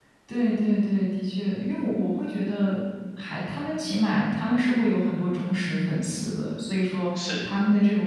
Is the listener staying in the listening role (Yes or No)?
Yes